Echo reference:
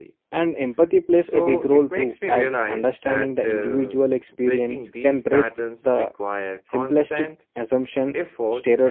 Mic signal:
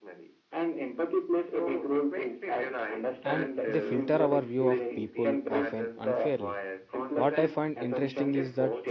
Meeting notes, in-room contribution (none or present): present